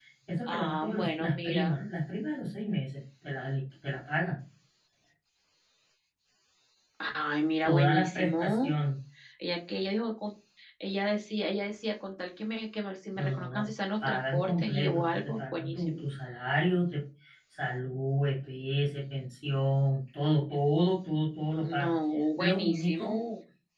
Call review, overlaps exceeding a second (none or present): present